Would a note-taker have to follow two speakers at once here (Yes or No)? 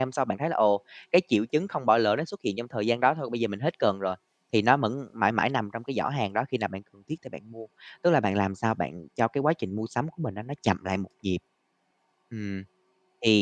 No